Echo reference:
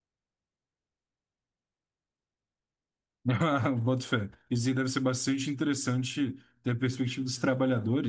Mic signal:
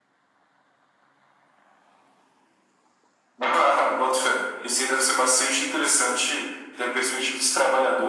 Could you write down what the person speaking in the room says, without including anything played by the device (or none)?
none